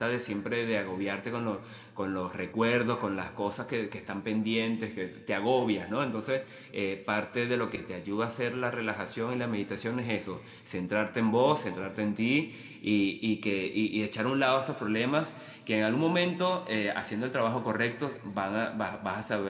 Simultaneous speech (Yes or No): No